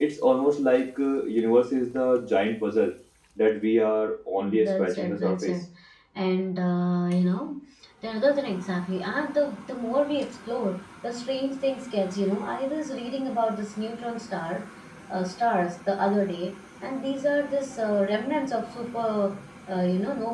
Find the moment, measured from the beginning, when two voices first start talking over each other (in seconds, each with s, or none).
4.3 s